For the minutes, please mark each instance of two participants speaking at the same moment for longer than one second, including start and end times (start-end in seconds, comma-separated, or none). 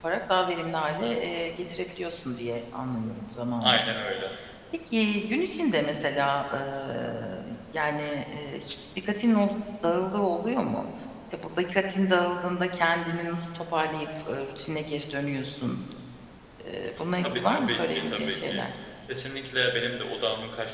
17.2-18.6